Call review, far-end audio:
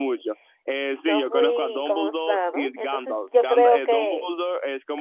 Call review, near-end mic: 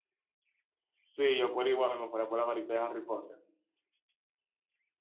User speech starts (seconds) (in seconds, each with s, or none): 1.0 s